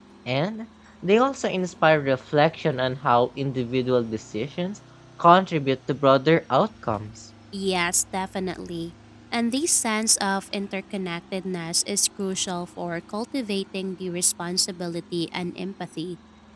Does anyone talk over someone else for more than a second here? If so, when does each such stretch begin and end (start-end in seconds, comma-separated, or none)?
none